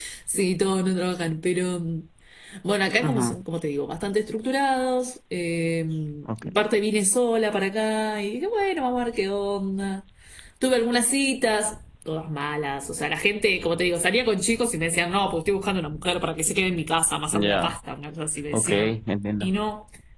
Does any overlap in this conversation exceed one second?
No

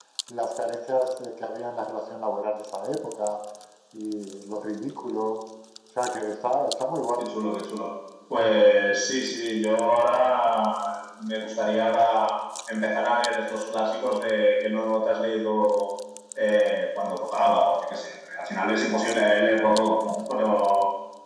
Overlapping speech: No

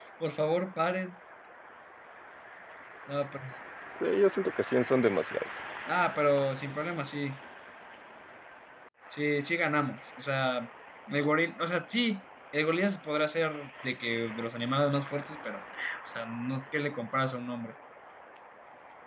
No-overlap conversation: Yes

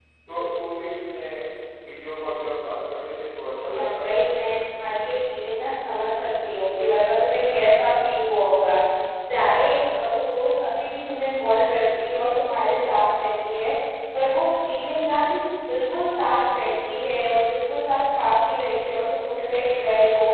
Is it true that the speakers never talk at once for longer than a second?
Yes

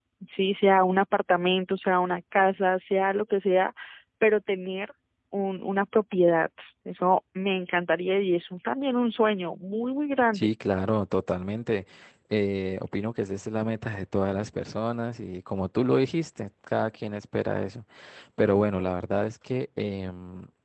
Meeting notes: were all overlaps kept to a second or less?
Yes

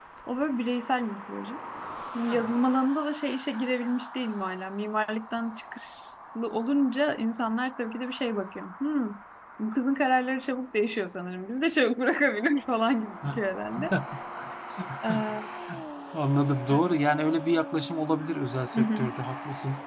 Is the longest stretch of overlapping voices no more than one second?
Yes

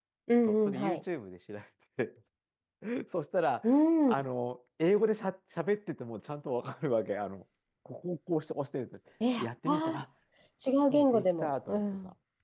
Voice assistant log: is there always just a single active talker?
No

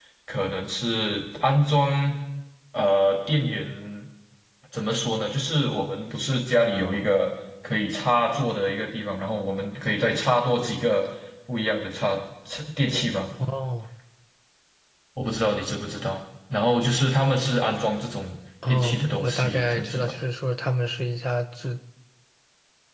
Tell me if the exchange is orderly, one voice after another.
No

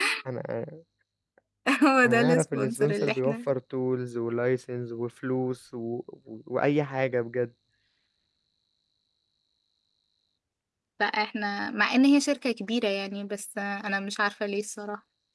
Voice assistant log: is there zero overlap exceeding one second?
No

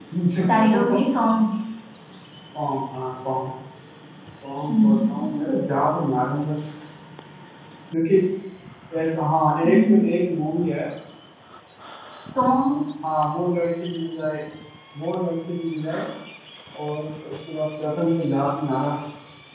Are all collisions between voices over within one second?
Yes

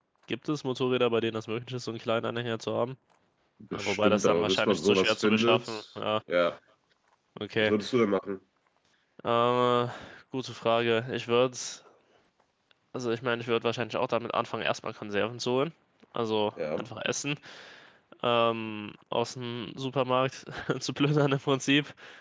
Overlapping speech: Yes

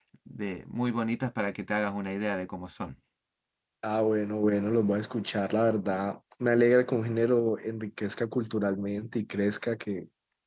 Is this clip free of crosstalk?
Yes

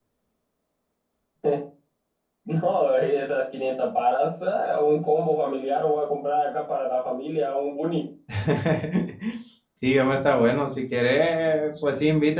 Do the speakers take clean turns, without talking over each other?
Yes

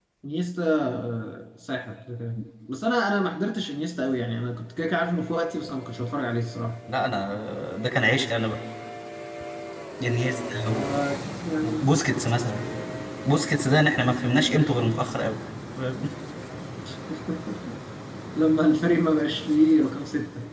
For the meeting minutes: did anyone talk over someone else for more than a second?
No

